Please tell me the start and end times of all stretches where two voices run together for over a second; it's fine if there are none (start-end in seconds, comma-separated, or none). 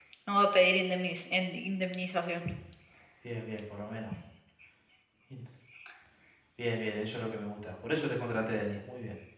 none